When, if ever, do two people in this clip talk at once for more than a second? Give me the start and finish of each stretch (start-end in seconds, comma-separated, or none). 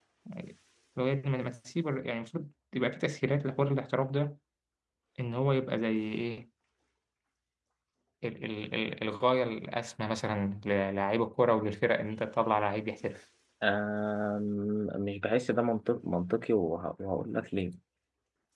none